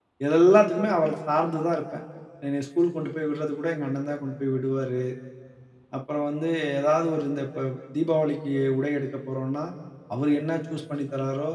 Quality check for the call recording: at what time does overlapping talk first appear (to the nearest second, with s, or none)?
none